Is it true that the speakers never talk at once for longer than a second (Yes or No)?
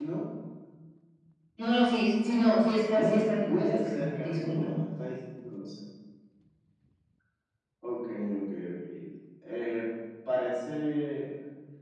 No